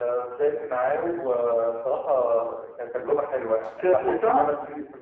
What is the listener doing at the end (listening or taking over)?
listening